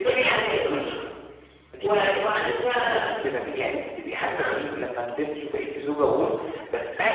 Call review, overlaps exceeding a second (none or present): present